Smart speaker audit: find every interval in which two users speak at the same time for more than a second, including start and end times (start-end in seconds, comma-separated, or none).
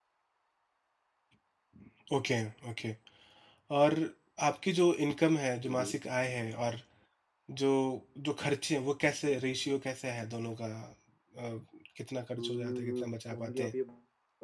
12.4-13.7